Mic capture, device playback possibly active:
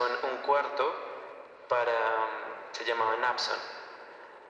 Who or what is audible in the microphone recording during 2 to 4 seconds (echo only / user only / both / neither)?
echo only